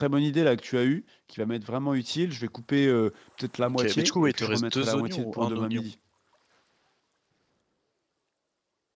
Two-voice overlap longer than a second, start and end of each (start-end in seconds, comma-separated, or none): 3.6-5.9